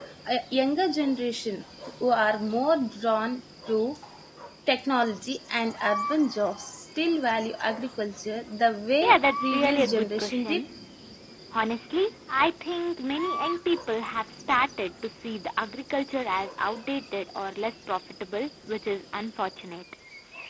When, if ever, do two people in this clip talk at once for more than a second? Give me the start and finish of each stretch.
9.0-10.6

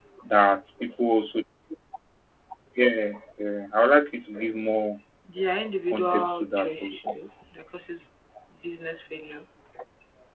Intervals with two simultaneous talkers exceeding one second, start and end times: 5.9-7.2

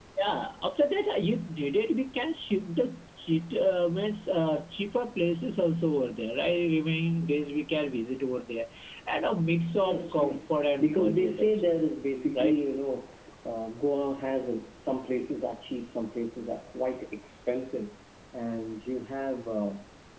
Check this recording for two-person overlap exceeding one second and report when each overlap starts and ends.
9.8-11.7

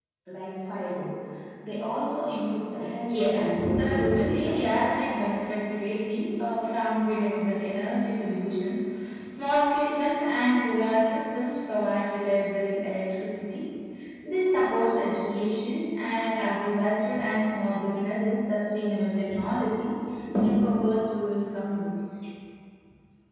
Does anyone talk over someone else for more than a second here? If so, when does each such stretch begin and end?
3.1-4.8

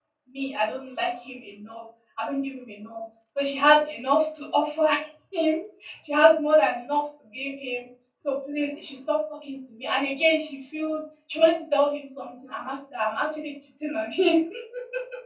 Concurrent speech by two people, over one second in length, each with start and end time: none

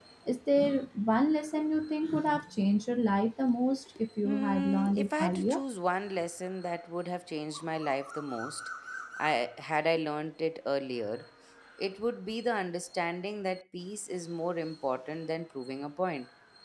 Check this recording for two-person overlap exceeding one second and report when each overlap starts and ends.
4.2-5.6

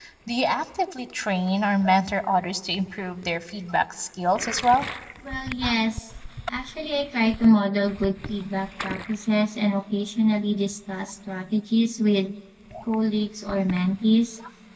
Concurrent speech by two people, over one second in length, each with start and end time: none

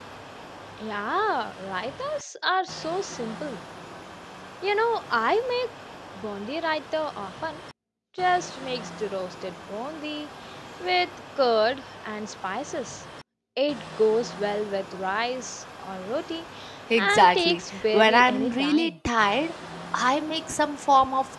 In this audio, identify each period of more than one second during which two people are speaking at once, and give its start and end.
17.0-18.9

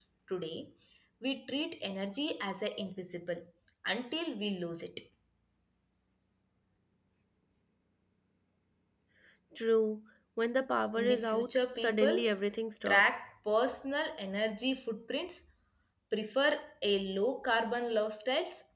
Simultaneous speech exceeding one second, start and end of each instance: 11.0-12.2

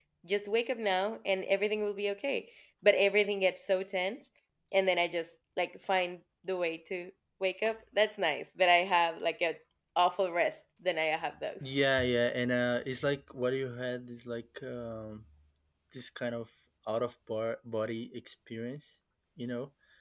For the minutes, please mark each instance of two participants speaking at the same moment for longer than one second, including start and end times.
none

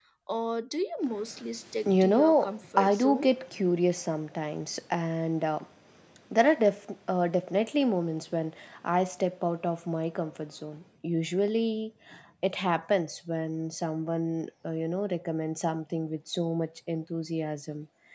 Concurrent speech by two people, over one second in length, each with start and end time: 1.9-3.3

